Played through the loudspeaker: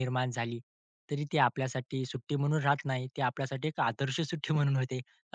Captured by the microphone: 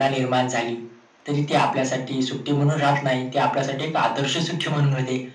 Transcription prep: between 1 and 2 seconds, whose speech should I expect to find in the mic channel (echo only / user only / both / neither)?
echo only